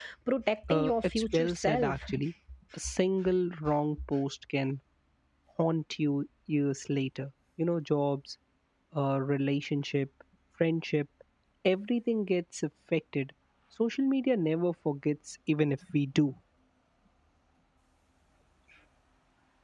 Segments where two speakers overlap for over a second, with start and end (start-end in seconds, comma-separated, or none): 0.7-2.0